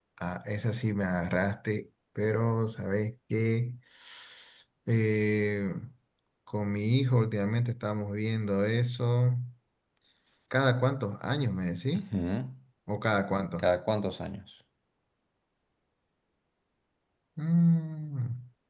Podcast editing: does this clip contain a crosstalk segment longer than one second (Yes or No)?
No